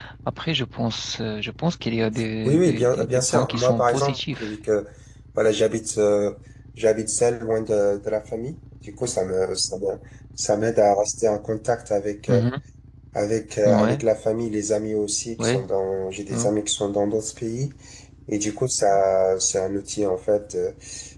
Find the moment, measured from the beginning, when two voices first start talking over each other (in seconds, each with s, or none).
2.5 s